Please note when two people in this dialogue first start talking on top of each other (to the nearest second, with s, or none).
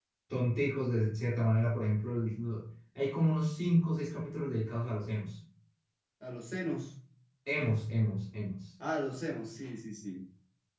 none